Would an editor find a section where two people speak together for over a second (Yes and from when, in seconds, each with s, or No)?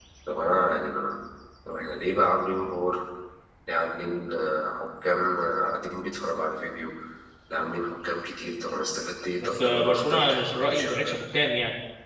Yes, from 9.4 s